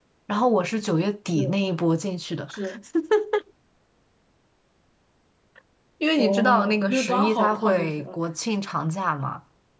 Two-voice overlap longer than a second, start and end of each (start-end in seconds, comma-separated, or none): 6.2-8.2